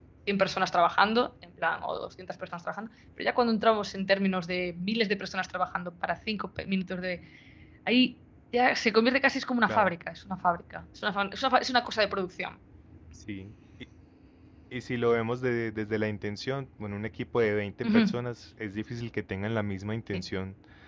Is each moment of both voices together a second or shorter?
Yes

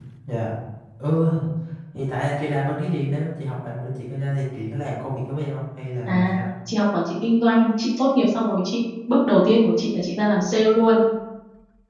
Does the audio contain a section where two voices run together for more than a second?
No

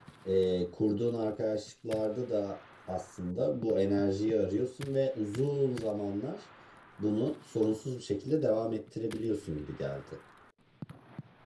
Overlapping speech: No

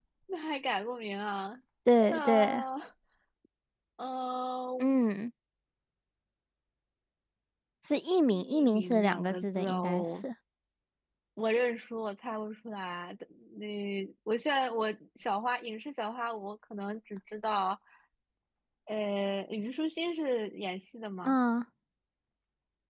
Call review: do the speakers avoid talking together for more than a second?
No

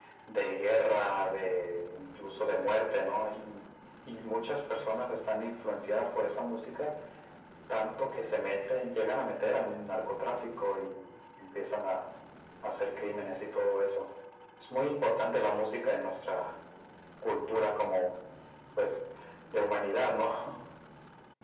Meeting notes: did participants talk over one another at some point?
No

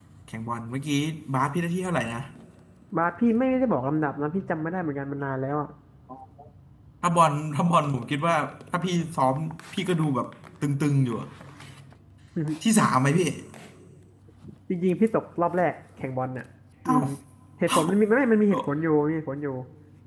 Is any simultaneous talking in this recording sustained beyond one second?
No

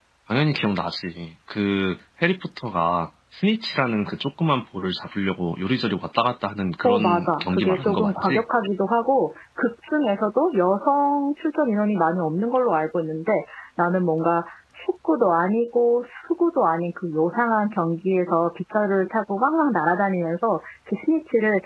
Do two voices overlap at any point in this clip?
Yes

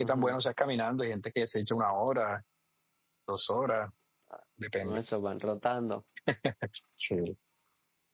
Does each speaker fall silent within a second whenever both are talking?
Yes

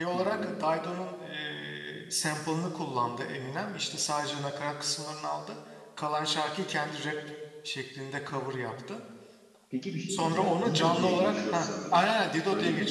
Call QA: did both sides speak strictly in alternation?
No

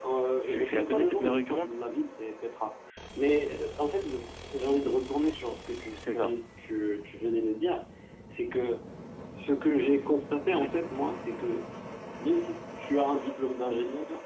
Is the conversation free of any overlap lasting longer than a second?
No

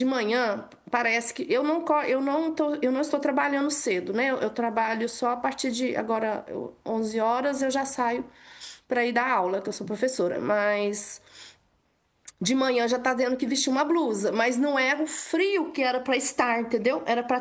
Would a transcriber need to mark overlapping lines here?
No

